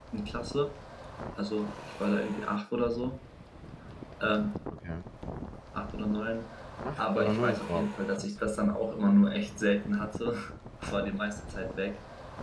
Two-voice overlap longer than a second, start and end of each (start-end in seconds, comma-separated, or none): 7.0-8.4